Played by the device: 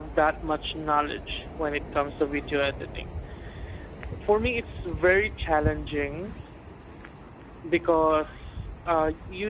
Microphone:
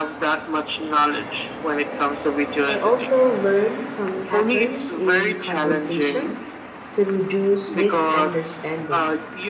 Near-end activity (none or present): present